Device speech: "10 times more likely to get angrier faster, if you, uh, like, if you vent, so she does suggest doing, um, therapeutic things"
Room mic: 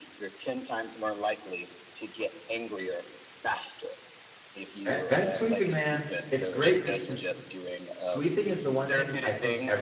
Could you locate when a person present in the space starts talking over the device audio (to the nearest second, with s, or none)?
5 s